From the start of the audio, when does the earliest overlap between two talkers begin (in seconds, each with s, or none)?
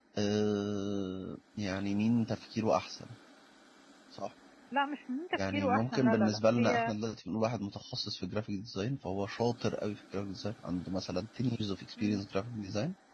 5.3 s